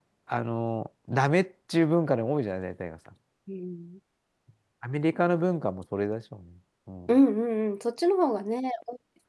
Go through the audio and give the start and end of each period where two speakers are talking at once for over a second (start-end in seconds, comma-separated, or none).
none